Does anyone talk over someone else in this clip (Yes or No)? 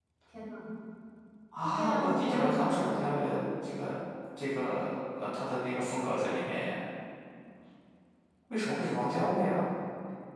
Yes